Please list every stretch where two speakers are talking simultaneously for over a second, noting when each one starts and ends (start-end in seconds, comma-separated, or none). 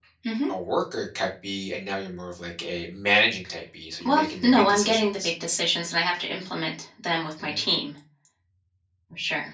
4.0-5.3